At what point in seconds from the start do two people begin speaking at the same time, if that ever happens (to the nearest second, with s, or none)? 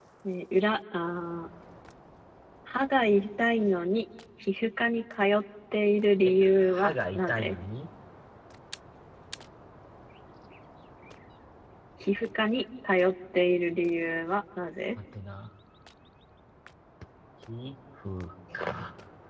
6 s